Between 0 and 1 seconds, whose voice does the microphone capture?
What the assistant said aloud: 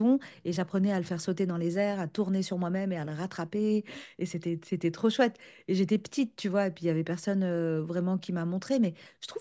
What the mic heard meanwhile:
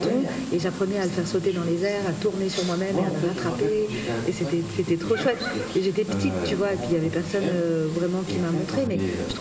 both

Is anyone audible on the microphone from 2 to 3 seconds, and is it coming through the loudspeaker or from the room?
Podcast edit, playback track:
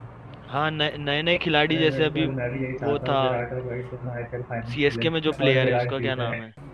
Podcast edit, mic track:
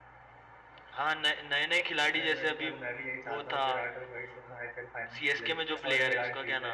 echo only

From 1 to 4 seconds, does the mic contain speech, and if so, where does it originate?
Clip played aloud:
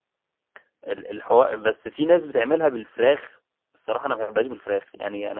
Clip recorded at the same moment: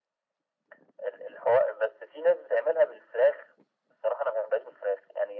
echo only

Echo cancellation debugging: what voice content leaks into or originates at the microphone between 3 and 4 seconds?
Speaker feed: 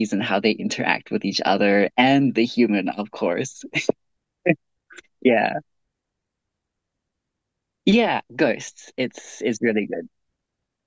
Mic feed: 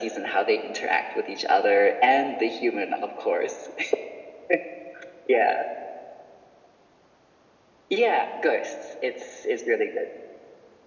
echo only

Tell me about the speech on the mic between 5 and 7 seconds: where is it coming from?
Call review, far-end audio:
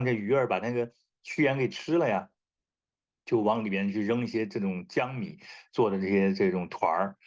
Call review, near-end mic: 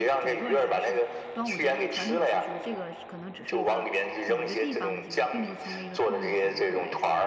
both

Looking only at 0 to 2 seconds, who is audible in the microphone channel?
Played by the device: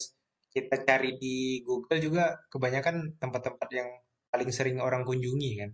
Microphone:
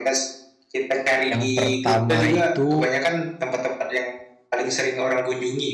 both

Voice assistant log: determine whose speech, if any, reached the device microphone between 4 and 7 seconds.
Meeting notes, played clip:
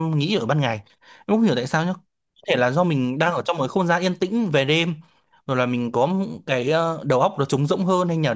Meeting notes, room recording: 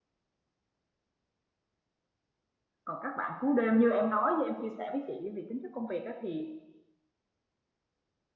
user only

